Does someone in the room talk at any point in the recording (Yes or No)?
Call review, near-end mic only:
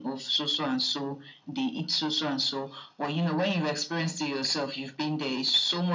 No